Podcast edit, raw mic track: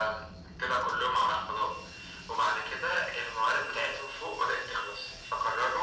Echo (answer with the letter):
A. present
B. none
A